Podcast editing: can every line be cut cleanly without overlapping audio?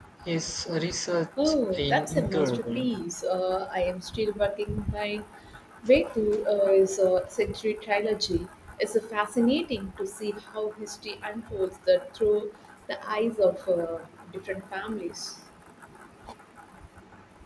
No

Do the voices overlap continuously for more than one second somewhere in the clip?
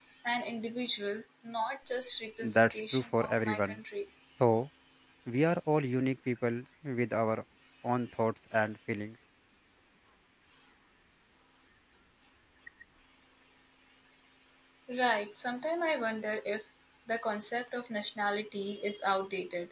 Yes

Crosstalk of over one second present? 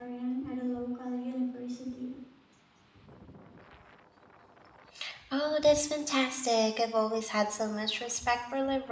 No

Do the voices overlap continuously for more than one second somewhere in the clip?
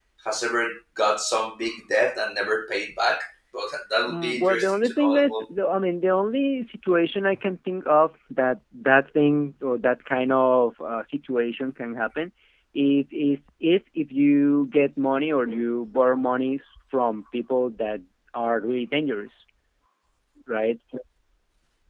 Yes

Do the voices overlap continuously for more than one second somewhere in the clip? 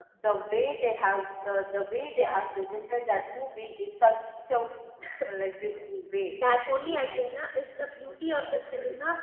No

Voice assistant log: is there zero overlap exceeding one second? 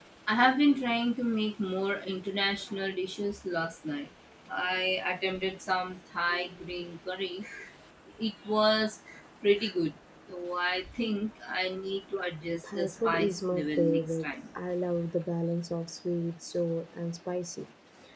No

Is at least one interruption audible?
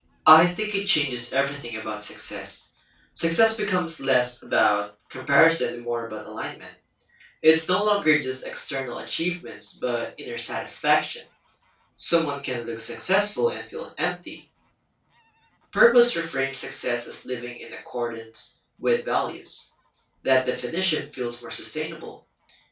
No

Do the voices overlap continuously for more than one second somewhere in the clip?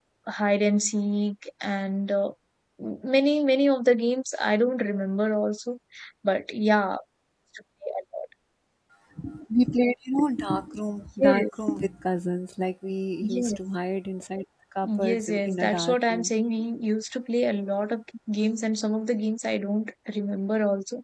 Yes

